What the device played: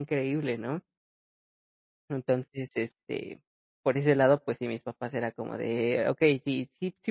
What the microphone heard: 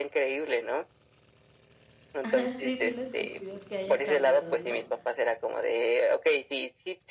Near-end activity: present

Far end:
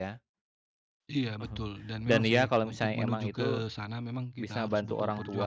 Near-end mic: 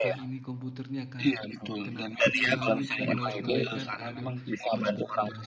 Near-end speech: present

